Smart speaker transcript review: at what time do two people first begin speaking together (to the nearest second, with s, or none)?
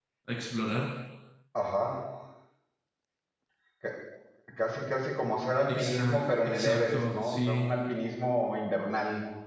6 s